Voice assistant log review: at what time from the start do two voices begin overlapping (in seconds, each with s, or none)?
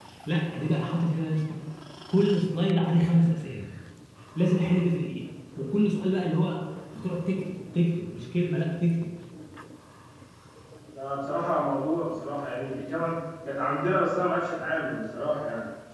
none